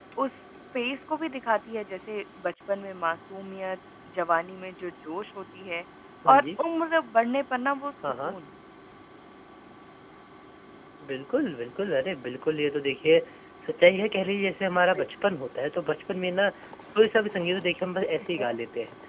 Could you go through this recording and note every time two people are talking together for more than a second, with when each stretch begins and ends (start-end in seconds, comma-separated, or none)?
none